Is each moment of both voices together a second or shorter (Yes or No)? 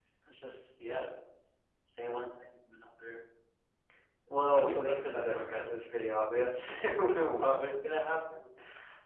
No